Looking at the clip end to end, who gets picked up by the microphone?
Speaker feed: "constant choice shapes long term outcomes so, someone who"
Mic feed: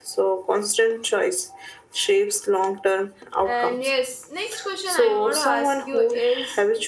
both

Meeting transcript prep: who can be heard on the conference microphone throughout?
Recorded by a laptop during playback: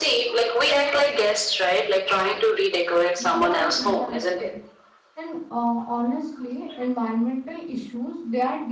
both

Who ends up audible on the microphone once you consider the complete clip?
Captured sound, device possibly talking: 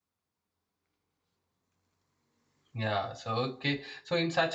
user only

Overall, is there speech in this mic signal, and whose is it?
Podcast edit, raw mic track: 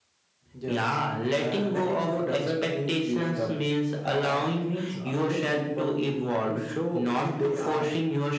echo only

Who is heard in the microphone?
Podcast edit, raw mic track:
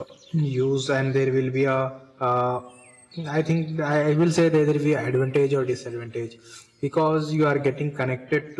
user only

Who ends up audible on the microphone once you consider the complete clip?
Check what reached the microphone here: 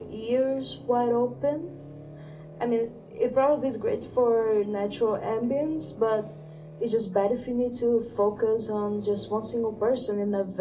user only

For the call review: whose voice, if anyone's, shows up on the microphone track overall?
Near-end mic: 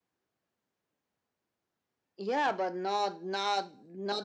echo only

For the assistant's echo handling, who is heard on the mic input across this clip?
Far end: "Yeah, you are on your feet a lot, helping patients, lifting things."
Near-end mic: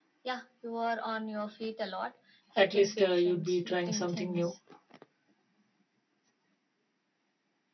both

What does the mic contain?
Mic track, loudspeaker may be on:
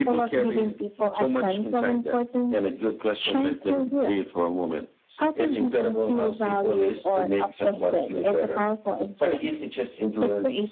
echo only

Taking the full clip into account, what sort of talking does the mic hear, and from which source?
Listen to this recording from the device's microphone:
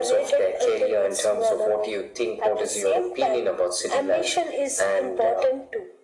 echo only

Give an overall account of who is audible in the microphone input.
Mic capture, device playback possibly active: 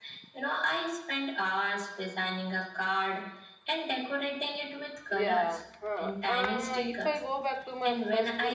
both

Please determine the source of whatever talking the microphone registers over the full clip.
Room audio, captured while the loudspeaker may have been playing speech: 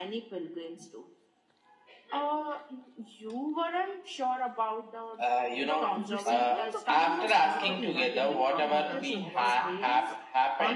both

